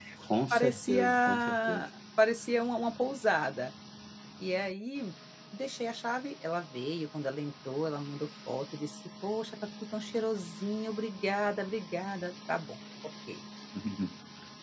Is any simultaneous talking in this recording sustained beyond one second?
Yes, from 0.5 s

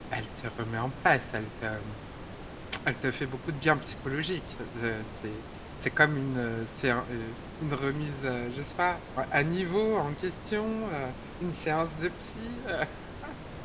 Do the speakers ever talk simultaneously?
No

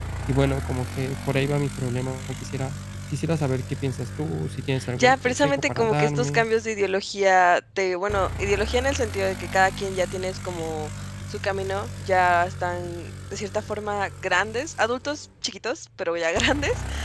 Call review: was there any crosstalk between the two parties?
Yes, from 4.8 s

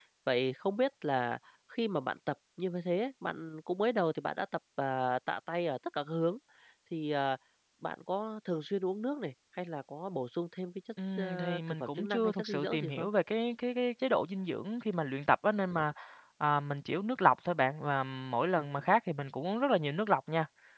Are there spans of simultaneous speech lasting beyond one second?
Yes, from 11.0 s

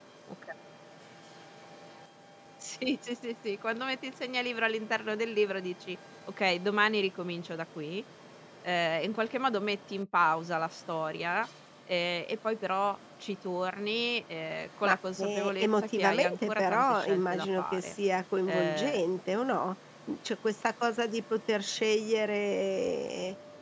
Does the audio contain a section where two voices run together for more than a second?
Yes, from 14.8 s

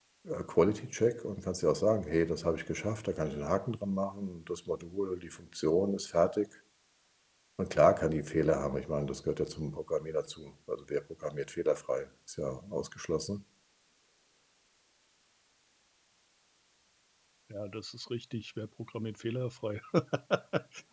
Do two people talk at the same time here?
No

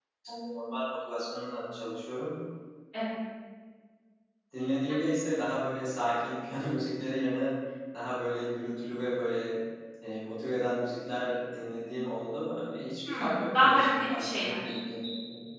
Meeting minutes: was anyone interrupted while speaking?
Yes, from 13.1 s

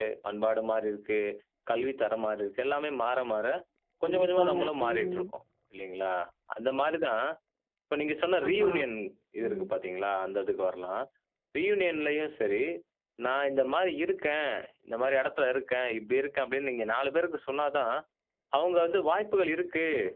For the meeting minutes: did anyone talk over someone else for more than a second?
Yes, from 4.0 s

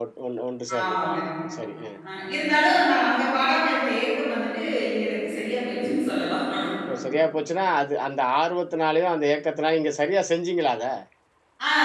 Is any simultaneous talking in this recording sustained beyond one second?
No

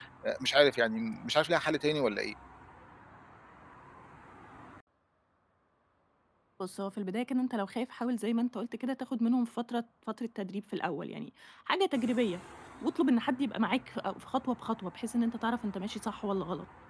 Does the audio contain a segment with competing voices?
No

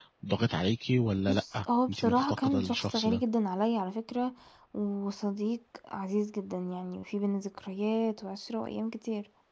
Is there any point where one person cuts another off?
Yes, from 1.3 s

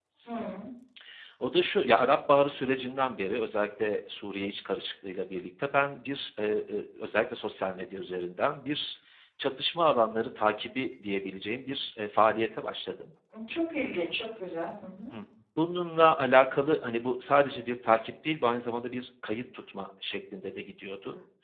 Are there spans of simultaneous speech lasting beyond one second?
No

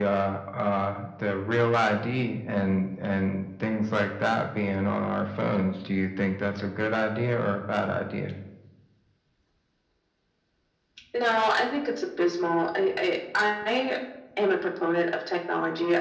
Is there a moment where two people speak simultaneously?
No

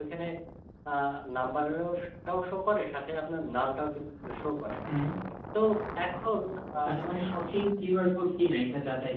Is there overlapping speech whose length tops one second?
No

